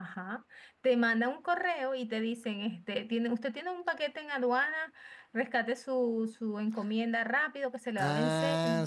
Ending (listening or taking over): taking over